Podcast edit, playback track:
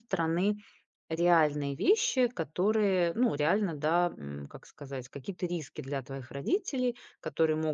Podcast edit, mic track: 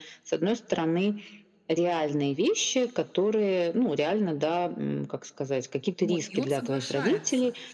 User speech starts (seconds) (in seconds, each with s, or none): 6.0 s